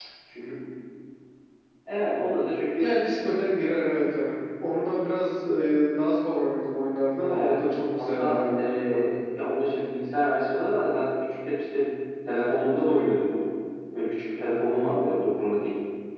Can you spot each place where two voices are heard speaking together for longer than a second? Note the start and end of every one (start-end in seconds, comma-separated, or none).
7.3-9.1